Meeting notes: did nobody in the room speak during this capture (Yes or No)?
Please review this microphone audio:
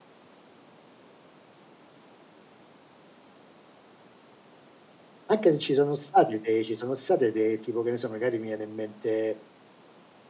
No